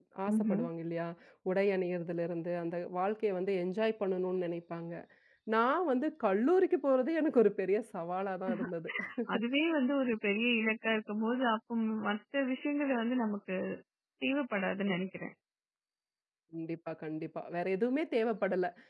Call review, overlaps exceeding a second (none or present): none